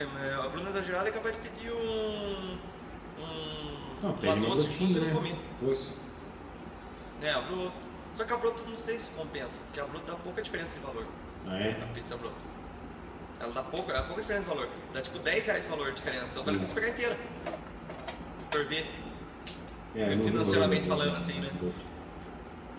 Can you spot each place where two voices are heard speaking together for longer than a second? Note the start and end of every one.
4.0-5.3, 20.2-21.5

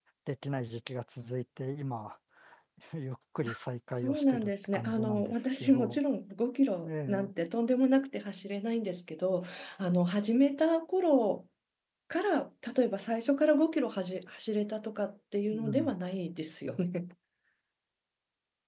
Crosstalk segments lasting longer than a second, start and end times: 3.9-6.0

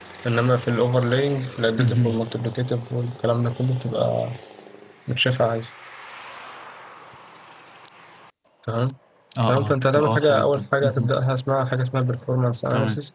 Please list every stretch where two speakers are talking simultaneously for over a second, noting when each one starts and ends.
9.5-11.1

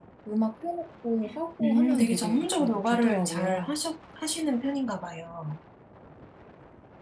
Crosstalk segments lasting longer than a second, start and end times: 1.6-3.7

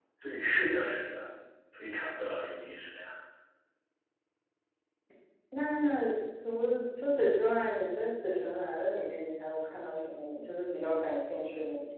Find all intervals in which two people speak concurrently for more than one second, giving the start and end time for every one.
none

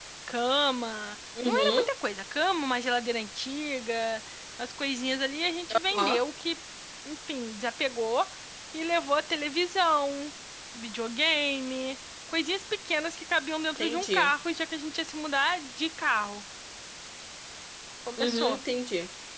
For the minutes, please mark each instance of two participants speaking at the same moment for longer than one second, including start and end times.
none

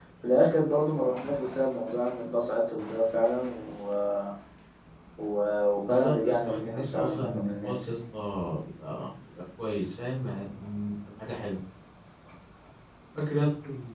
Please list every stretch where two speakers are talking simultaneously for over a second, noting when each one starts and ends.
5.9-7.7

